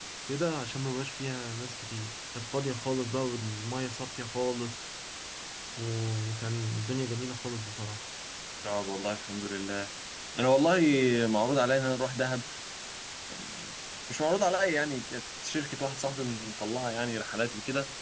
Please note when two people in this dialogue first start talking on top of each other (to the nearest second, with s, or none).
none